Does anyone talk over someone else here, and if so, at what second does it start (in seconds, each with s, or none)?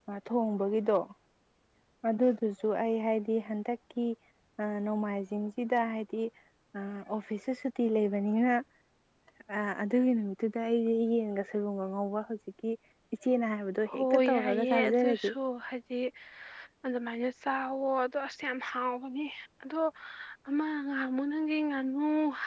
13.9 s